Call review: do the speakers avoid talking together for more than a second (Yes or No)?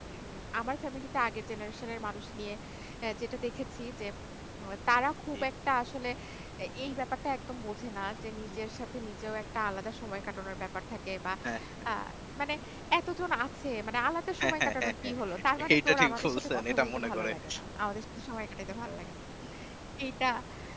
No